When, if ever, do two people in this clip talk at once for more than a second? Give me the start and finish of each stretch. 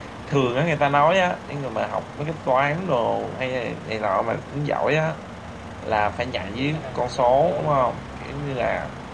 6.4-7.9

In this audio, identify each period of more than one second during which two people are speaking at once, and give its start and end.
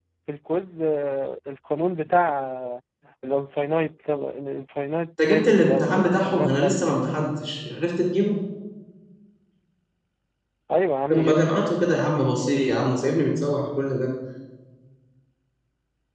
5.3-7.0

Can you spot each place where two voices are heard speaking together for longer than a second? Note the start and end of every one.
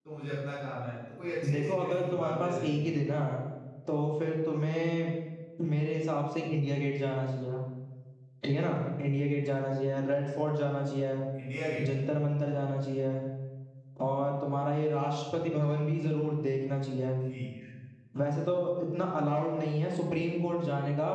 1.5-2.9

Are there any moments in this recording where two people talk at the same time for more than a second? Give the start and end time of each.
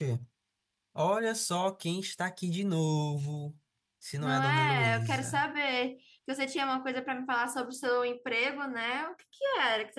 4.2-5.4

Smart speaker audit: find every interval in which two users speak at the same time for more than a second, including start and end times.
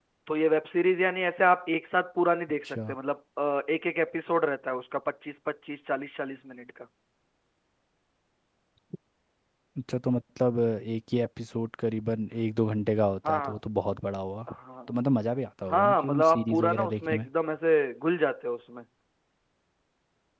15.7-17.3

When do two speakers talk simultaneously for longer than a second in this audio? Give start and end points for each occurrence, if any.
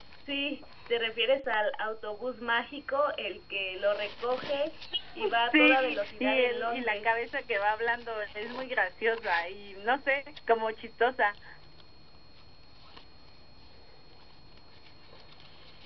5.4-7.1

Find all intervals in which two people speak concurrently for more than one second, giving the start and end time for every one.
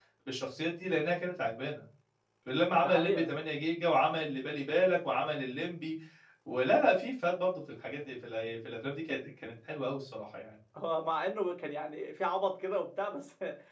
none

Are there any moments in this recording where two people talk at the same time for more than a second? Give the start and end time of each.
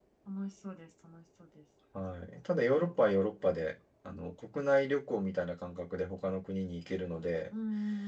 none

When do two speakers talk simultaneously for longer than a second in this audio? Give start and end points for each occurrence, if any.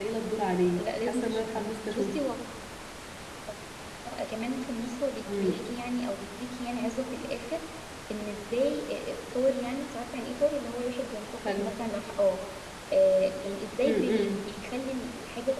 0.8-2.2

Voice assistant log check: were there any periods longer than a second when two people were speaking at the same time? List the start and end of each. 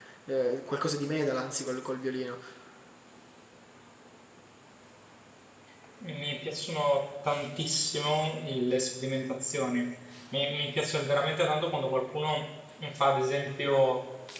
none

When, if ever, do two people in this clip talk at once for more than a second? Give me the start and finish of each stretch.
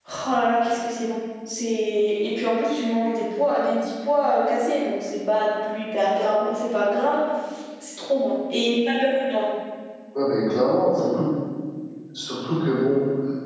none

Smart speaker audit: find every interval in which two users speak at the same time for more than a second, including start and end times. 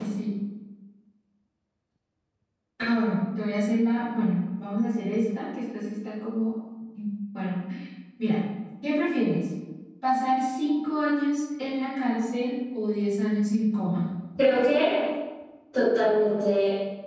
none

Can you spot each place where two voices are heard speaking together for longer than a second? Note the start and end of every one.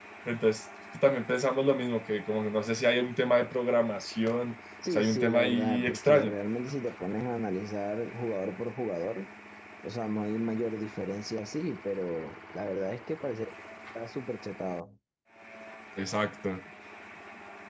4.9-6.3

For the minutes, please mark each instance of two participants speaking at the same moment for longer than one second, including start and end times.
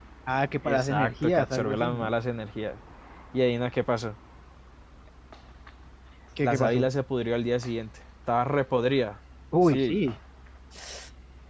0.6-2.1

